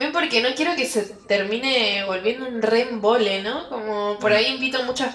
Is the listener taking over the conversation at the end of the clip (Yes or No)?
No